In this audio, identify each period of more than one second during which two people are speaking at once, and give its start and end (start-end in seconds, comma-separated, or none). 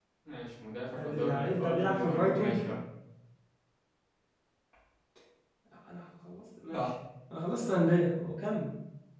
1.0-2.6